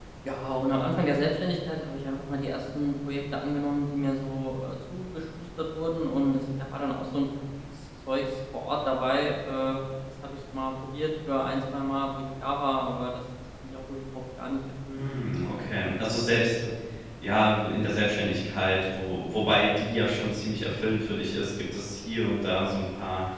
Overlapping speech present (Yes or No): No